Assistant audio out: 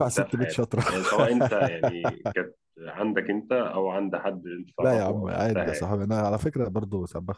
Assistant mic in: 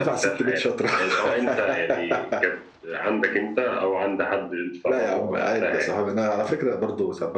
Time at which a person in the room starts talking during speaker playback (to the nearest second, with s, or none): none